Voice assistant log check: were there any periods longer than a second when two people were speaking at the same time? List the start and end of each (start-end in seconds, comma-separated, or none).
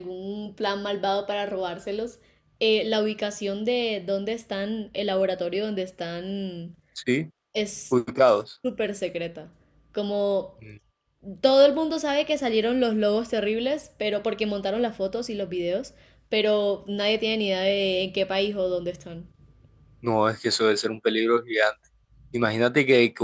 none